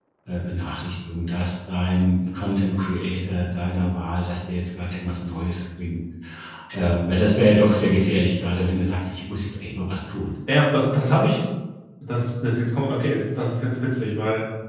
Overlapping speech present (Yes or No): No